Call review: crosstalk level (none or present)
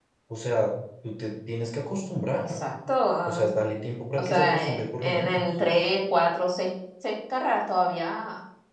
present